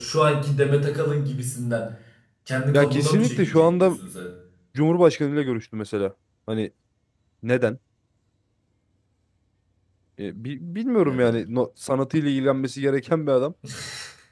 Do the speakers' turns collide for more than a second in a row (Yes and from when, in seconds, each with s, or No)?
Yes, from 2.7 s